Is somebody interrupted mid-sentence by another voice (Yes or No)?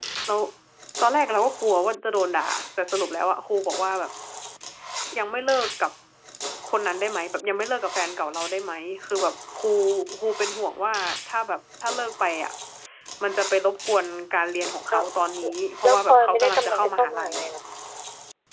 Yes